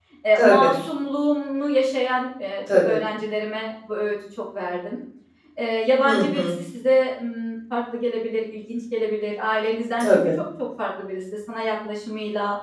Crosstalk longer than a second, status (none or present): none